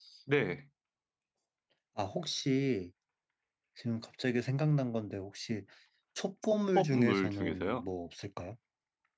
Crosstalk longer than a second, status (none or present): present